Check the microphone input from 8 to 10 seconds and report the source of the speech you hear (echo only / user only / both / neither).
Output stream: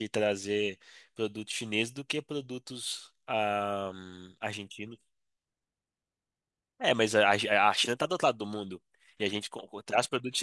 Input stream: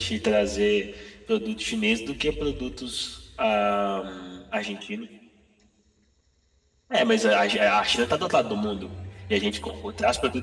echo only